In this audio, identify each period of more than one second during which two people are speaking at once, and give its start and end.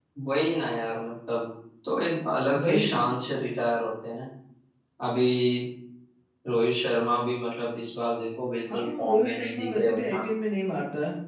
8.7-10.2

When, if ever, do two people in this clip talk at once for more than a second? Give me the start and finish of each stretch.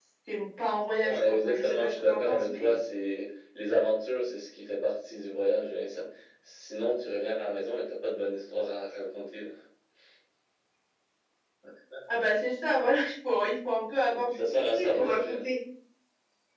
1.1-2.8, 14.1-15.5

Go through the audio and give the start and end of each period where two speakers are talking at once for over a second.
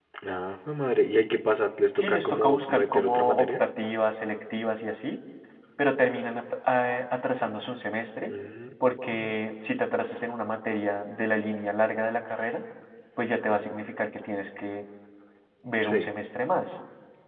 1.9-3.6

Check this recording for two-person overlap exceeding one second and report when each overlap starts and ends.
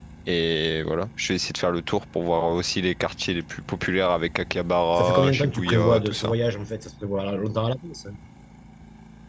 5.0-6.3

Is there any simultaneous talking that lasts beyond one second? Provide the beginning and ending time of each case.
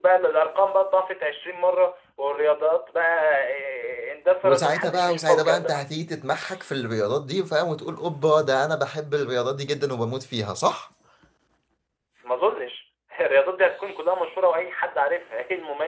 4.4-5.7

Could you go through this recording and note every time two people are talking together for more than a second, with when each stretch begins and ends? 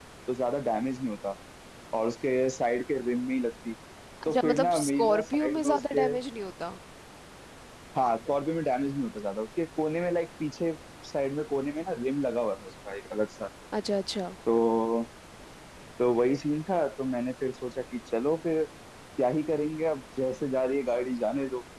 4.3-6.1

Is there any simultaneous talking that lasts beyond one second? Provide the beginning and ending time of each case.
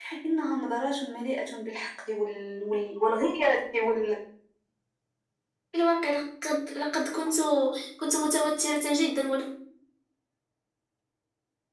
none

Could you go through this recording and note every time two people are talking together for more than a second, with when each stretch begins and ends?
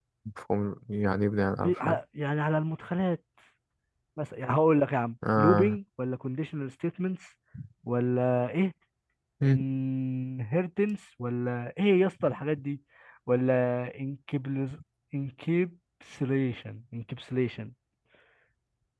none

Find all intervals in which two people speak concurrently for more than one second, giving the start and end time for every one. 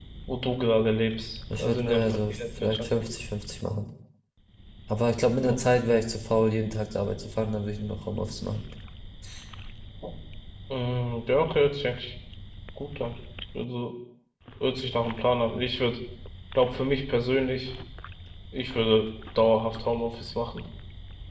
1.6-2.9

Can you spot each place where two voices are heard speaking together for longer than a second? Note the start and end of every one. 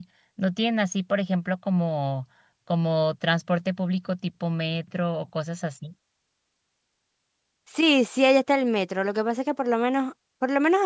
none

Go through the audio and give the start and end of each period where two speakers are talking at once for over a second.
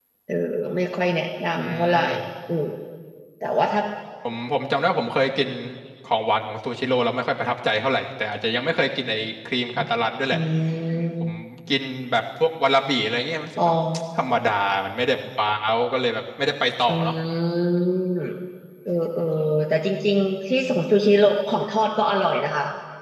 none

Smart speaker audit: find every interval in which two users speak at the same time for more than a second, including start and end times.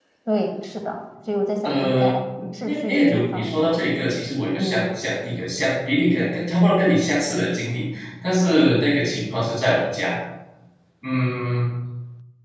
2.6-4.0

